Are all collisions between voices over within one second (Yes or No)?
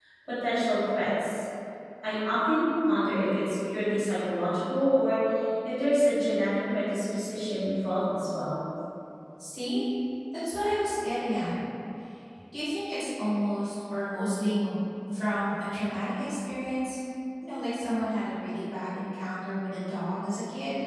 Yes